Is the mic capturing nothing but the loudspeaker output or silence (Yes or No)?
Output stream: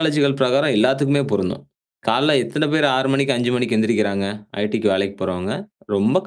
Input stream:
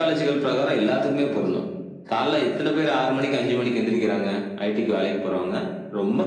Yes